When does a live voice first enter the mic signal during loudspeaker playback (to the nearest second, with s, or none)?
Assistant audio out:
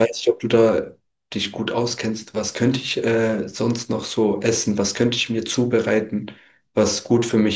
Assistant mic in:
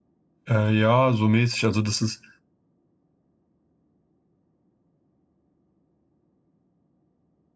0 s